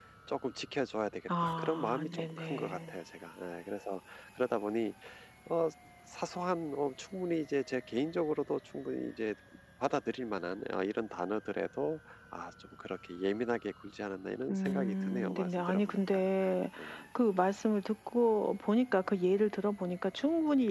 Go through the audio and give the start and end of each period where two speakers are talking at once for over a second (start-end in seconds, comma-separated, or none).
1.3-2.9, 14.5-16.3